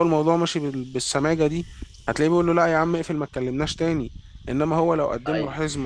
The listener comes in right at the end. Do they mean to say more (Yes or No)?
No